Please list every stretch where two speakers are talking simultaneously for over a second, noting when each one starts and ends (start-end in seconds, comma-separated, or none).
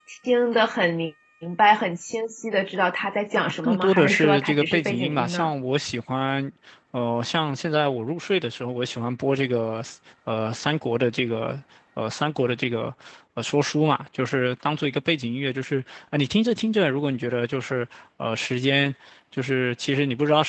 3.6-5.5